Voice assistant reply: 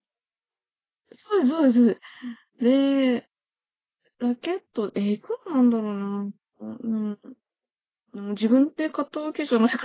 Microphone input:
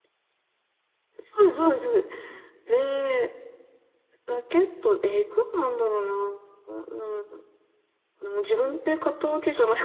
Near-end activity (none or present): none